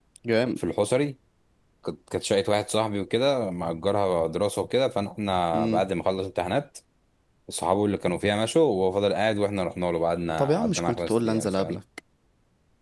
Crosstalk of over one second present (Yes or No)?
Yes